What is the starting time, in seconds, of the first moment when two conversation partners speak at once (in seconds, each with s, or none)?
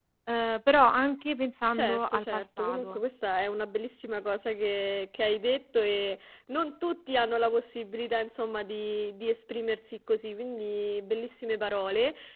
1.7 s